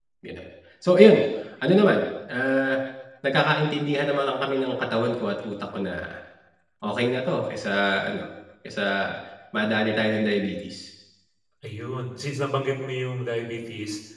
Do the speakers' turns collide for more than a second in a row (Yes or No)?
No